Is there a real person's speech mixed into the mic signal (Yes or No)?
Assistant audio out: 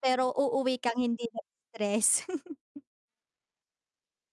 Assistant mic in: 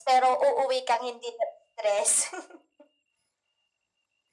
No